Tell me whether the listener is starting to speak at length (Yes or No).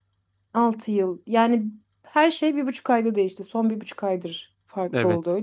Yes